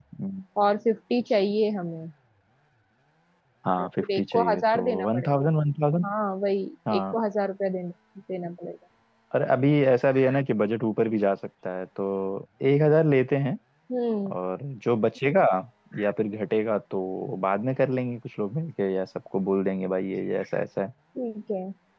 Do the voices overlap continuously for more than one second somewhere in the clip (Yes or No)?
Yes